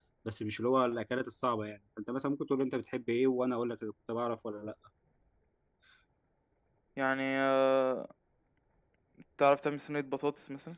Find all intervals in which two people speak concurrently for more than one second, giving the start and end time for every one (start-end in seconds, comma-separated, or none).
none